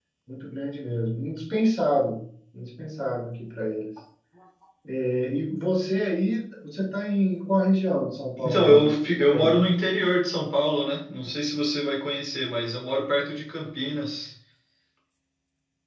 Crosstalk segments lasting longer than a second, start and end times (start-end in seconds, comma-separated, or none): 8.4-9.7